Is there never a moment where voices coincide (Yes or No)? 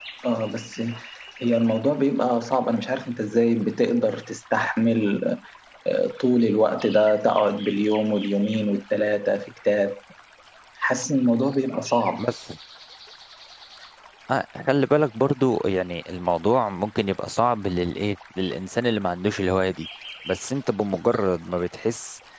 Yes